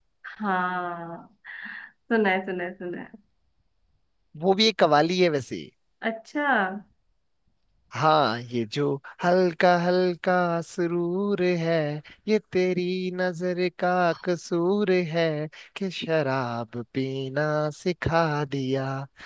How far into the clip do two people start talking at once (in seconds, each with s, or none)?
none